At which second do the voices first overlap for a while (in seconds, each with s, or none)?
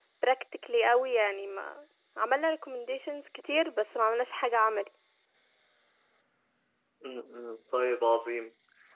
none